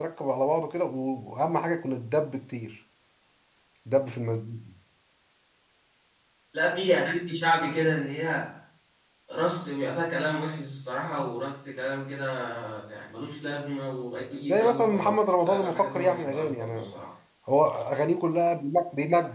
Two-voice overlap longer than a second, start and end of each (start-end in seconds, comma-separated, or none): 14.5-17.0